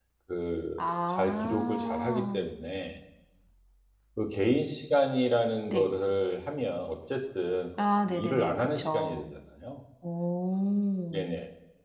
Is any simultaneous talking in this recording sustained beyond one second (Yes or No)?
Yes